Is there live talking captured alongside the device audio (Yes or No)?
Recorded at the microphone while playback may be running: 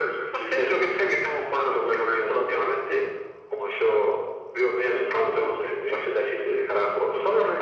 No